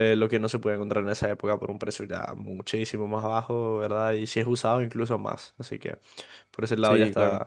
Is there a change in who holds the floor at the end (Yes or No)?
No